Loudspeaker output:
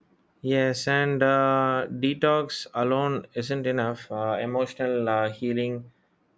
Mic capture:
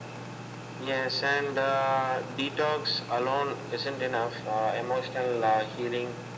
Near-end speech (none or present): none